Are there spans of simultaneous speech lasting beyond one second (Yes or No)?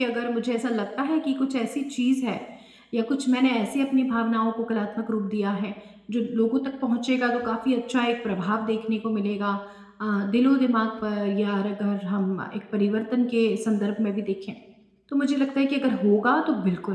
No